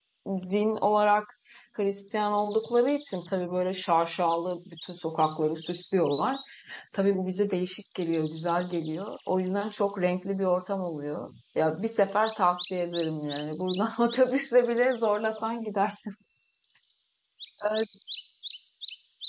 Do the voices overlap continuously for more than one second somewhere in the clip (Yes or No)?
No